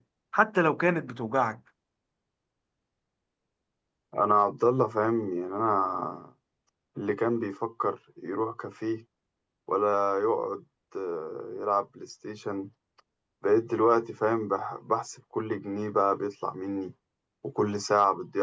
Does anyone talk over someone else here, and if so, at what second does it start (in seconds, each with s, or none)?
none